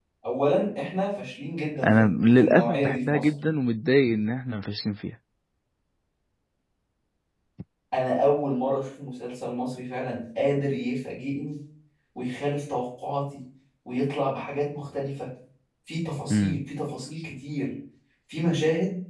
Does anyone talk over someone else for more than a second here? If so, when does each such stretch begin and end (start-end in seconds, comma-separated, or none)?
1.9-3.3